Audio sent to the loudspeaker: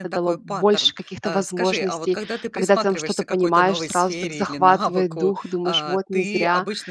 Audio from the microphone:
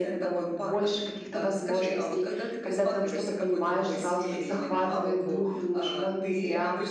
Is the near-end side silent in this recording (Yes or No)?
Yes